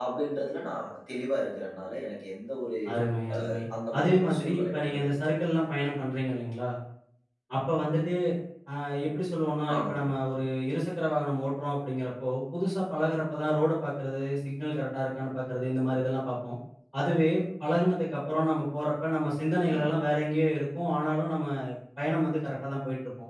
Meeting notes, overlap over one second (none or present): present